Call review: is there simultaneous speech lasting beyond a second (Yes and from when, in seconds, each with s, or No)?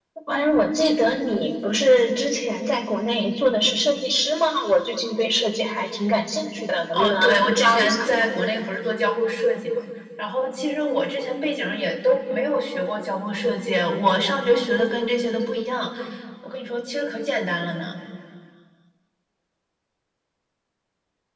Yes, from 6.9 s